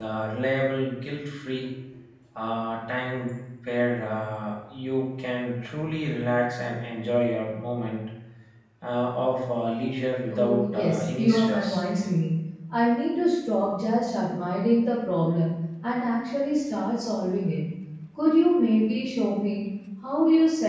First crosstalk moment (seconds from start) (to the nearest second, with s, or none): 10 s